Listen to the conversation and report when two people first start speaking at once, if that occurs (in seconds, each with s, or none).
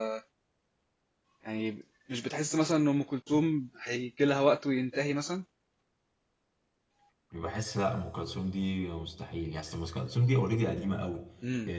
none